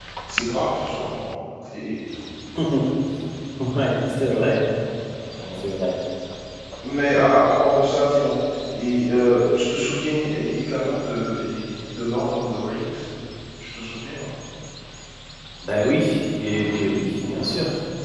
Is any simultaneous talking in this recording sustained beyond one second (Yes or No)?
No